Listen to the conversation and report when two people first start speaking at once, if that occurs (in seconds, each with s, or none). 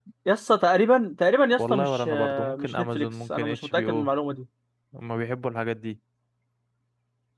1.5 s